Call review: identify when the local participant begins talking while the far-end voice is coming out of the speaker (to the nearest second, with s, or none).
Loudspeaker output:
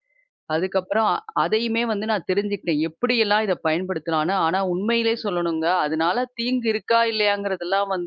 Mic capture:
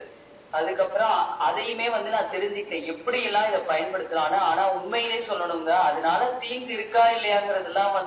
none